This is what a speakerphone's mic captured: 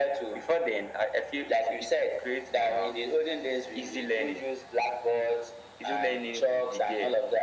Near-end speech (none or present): none